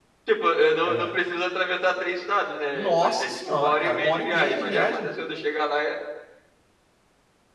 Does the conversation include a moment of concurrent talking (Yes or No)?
Yes